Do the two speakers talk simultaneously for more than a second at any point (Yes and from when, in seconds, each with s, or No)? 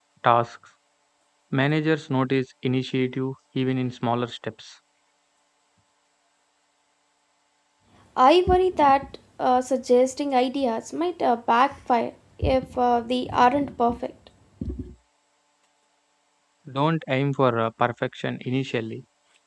No